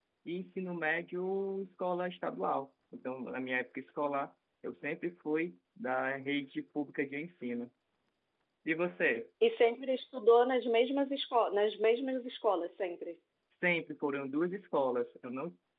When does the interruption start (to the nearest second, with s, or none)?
none